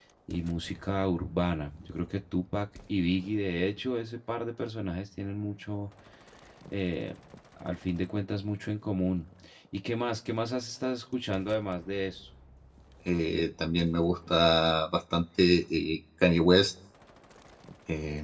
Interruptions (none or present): none